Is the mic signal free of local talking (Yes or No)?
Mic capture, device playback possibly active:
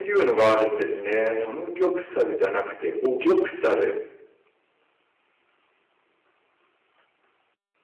No